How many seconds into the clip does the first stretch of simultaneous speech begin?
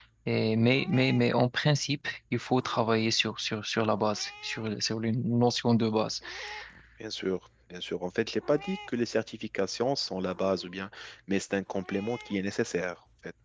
none

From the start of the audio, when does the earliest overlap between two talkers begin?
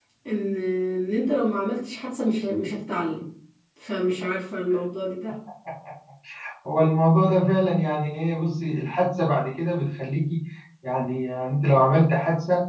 none

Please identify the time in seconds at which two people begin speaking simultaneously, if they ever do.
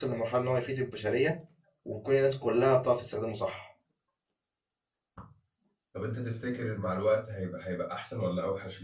none

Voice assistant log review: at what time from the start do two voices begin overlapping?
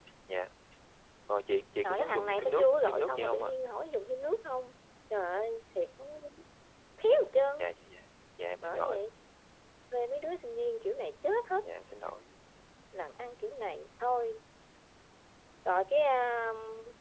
1.8 s

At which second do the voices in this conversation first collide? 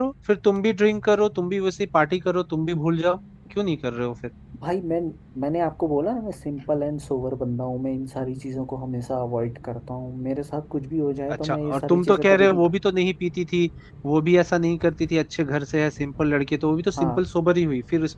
11.3 s

